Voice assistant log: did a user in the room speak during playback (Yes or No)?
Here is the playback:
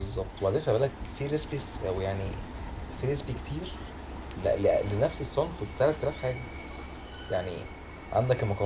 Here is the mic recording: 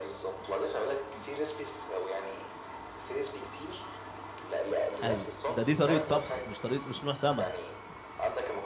Yes